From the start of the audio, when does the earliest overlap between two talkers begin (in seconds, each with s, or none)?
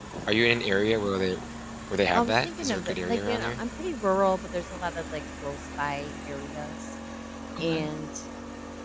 2.1 s